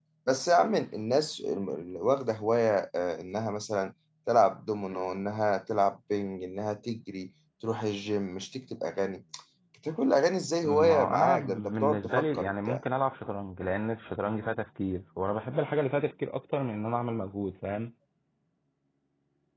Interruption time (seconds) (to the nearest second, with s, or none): 11 s